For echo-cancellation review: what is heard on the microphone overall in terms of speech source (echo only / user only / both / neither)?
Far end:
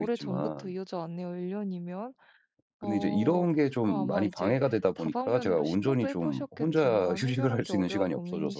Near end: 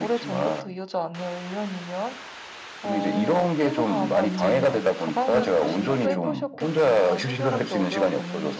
both